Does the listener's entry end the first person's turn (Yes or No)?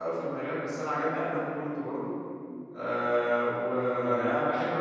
No